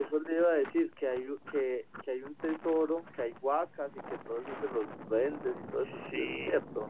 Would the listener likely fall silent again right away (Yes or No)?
No